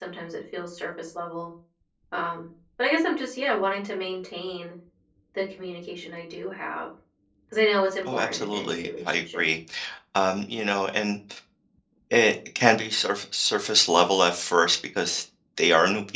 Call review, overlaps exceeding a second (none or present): present